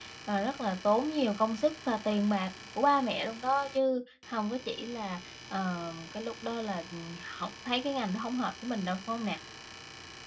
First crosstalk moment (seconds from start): none

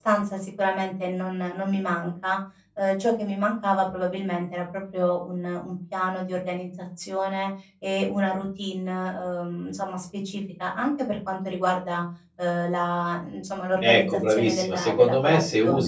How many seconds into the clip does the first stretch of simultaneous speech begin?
13.8 s

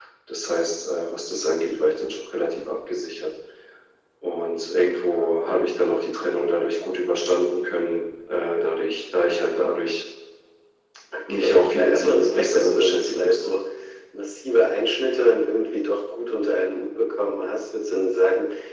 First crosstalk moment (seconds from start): 11.3 s

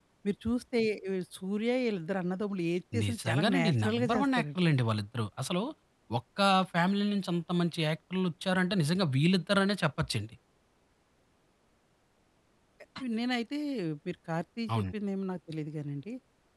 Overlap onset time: 3.0 s

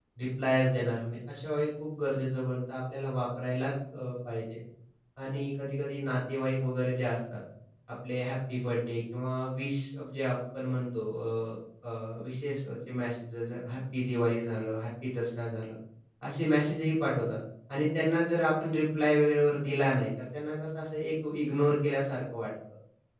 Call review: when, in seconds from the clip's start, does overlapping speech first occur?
none

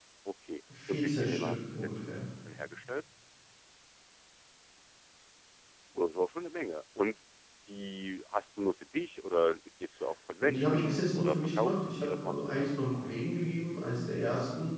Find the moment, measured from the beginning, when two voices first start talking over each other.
0.9 s

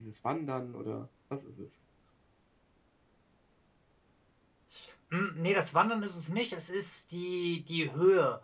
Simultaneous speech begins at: none

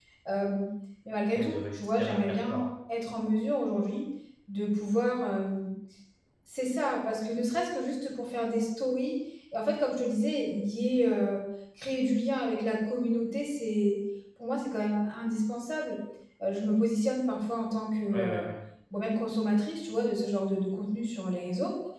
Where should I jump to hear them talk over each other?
1.4 s

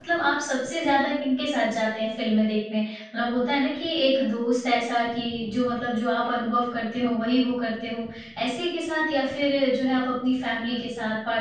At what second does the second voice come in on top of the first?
none

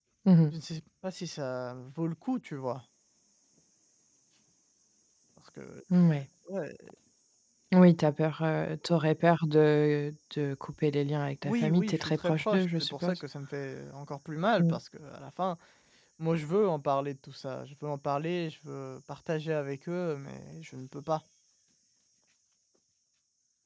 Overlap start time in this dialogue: 11.4 s

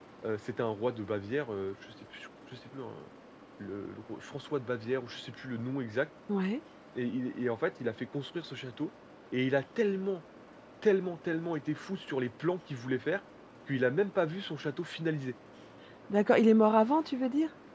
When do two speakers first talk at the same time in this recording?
none

